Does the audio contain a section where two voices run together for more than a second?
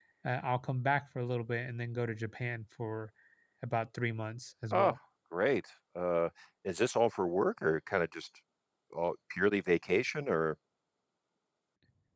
No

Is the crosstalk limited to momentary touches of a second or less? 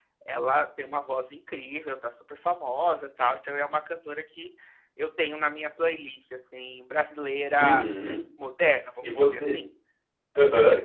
Yes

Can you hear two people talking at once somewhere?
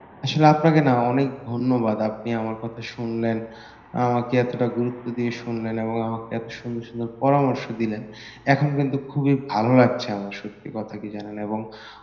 No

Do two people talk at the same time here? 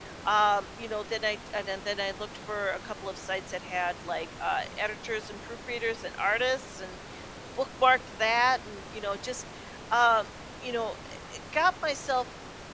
No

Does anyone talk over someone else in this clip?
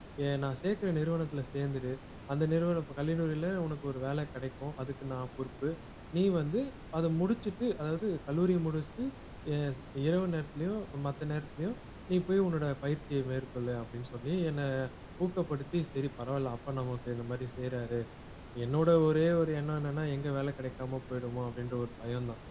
No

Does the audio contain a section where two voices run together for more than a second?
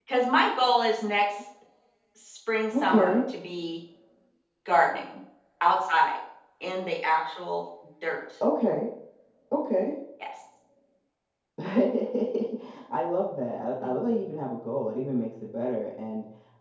No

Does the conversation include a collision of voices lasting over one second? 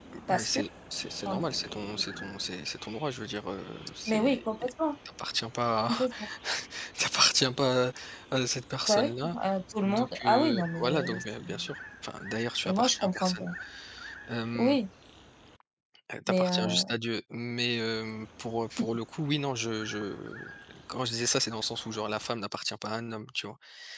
Yes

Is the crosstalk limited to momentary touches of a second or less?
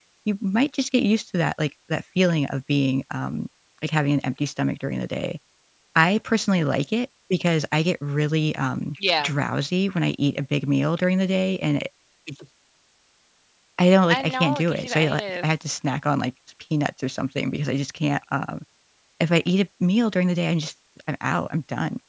No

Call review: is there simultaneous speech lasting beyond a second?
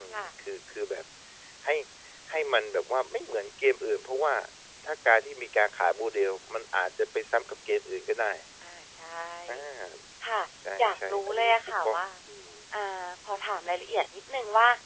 Yes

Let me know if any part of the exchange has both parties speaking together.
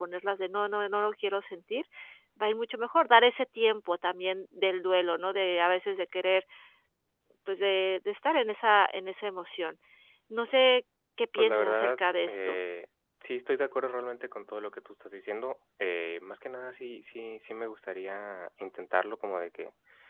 Yes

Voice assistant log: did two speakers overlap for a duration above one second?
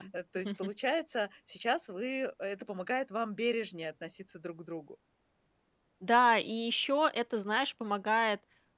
No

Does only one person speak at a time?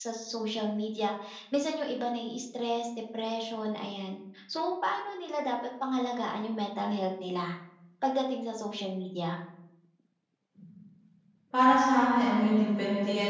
Yes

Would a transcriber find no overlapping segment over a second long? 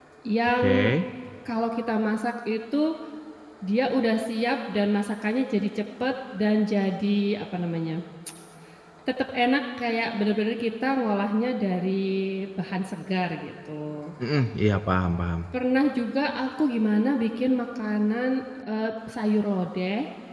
Yes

